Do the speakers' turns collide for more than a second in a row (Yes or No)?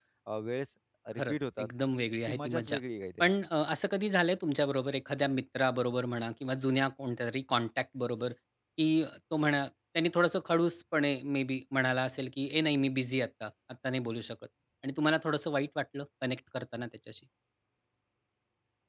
No